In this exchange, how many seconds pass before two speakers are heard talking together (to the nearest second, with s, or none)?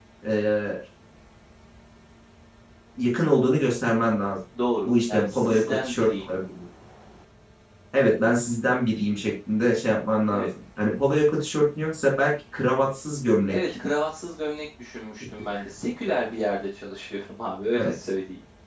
5 s